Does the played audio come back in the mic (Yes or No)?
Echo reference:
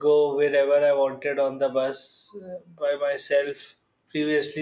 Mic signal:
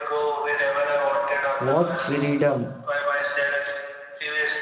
Yes